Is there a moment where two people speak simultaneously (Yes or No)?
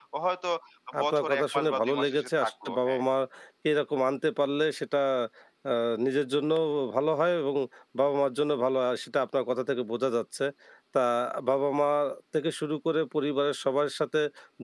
Yes